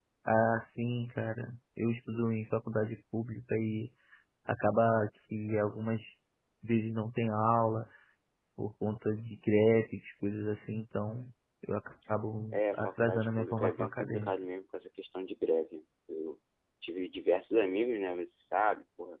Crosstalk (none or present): present